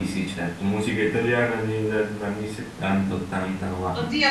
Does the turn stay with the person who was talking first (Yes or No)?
No